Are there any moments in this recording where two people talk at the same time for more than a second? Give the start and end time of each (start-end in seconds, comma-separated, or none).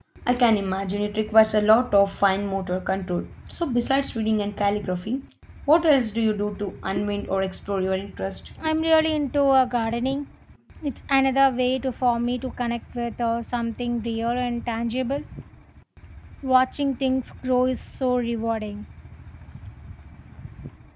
none